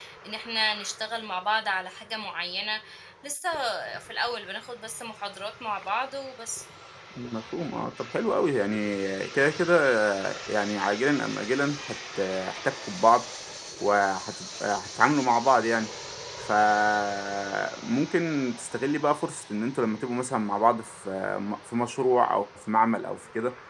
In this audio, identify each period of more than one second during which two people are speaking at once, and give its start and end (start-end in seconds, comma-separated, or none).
none